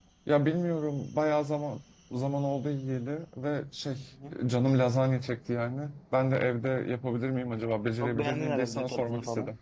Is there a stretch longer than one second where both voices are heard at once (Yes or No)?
Yes